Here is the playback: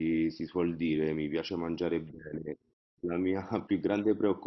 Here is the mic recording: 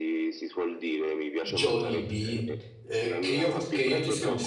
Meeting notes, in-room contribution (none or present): present